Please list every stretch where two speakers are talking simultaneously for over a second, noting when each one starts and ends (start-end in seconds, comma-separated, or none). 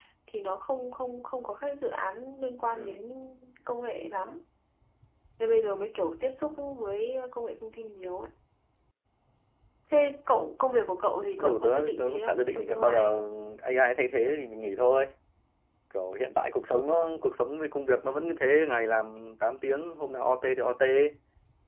11.4-13.2